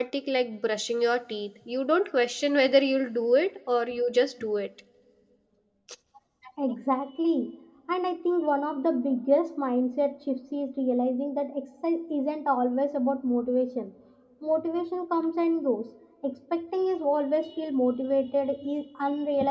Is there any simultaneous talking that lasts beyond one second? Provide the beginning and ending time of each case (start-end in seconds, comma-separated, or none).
none